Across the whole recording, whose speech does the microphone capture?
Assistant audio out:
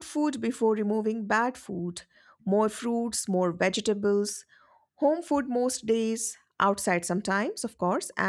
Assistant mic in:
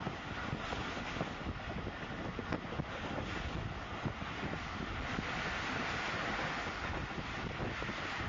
neither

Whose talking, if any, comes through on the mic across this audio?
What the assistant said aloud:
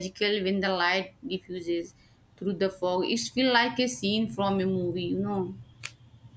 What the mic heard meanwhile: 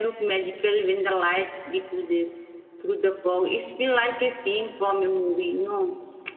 echo only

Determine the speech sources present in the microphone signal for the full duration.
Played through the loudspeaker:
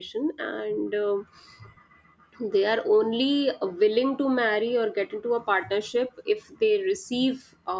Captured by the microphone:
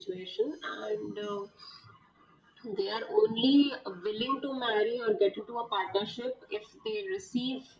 echo only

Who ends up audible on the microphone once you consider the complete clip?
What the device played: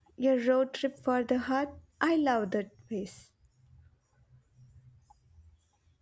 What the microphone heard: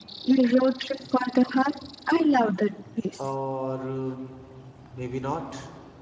both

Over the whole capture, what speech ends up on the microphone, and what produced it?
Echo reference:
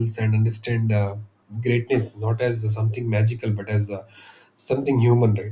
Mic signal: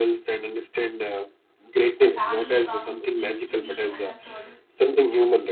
both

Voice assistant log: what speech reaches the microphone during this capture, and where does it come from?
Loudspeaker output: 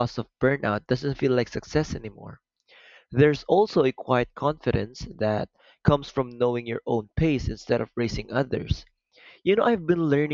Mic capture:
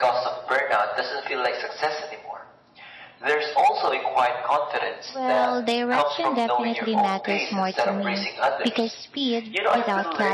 both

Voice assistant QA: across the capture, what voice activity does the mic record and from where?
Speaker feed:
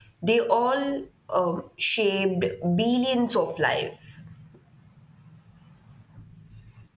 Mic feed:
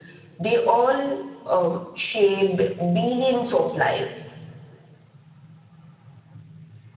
echo only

